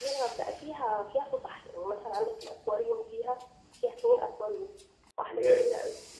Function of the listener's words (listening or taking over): taking over